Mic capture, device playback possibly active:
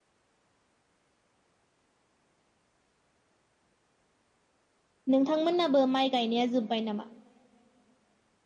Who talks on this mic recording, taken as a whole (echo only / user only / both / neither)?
user only